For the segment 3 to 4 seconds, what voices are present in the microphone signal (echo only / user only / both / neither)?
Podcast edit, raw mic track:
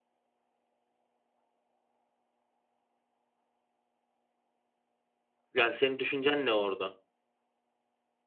neither